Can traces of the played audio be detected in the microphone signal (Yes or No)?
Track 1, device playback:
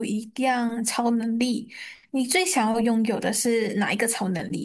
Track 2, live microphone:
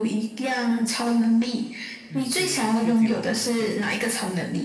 Yes